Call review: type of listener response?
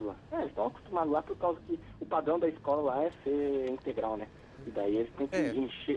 listening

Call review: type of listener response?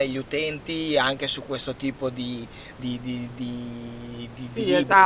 taking over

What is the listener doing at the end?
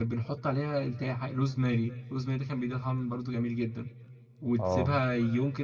listening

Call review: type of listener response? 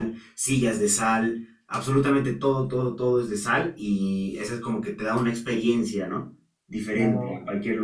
taking over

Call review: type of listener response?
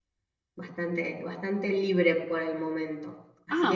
listening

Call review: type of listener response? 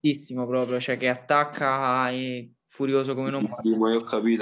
taking over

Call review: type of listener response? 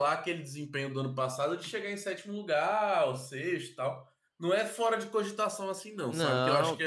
taking over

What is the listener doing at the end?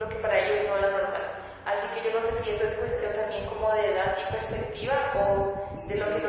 listening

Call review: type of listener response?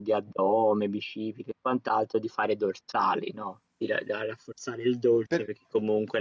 listening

